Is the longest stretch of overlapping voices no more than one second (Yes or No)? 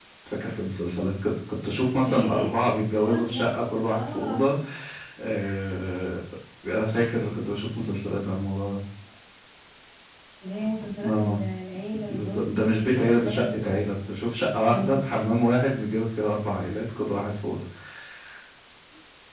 No